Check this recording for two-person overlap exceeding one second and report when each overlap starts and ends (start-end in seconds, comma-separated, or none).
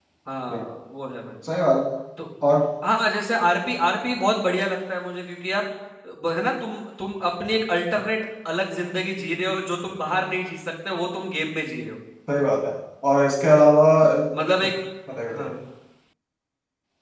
none